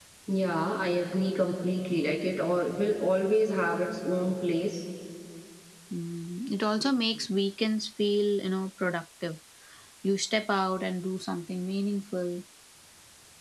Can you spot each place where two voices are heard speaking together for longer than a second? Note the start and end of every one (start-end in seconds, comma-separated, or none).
none